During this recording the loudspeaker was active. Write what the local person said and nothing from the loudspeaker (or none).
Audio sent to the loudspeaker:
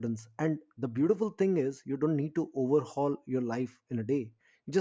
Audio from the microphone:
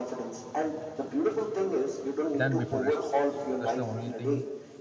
than before yesterday so that's the only thing